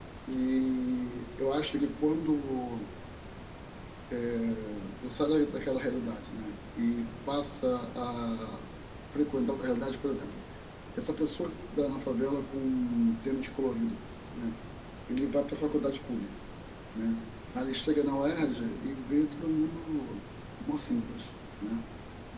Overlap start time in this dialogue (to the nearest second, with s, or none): none